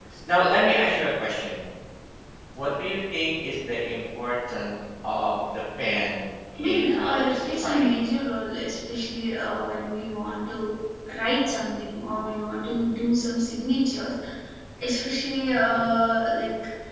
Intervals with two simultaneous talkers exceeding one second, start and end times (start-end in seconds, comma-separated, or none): 6.6-8.0